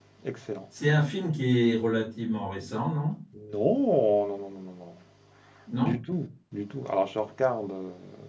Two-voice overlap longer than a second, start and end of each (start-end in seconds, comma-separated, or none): none